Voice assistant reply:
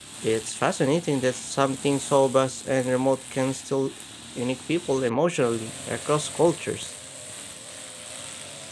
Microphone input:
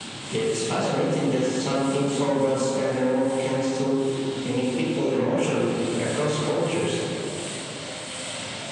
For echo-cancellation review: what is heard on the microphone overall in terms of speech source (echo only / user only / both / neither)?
echo only